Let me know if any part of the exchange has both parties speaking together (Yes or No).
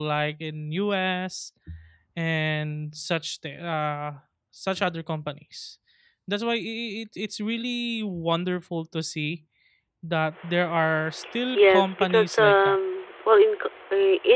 Yes